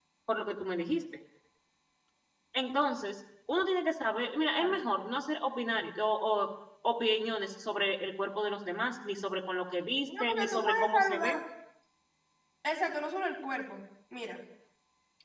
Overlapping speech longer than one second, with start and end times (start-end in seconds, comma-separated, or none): 10.1-11.4